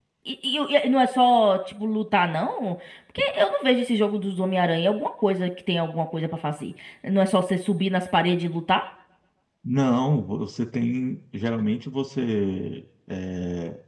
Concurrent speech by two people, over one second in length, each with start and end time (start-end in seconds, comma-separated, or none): none